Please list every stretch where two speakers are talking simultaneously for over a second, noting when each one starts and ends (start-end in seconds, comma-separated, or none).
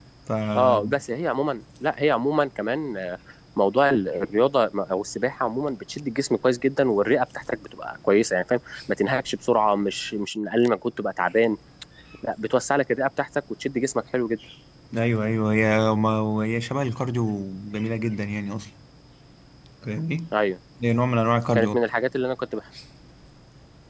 none